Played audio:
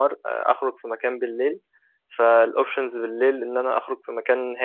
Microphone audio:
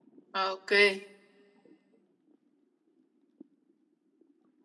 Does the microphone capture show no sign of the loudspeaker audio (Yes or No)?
Yes